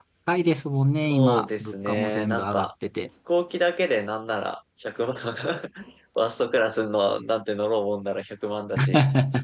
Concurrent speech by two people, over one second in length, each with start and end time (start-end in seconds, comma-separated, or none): 1.0-2.7